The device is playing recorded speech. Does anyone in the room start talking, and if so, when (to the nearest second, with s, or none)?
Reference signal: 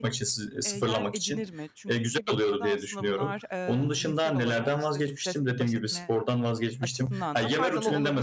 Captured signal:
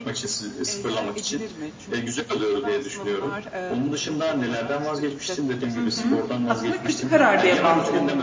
6 s